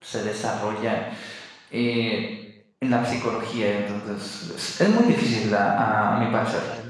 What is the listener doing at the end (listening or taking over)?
taking over